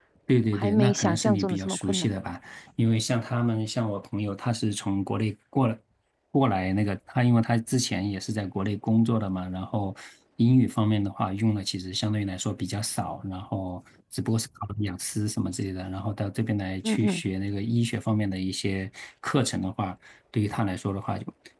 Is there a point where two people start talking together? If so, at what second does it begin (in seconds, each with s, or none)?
0.5 s